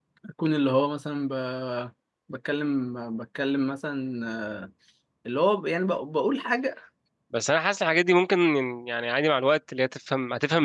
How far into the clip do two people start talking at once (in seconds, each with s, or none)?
none